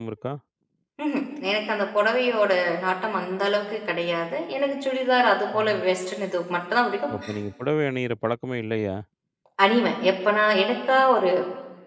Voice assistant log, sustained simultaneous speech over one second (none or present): none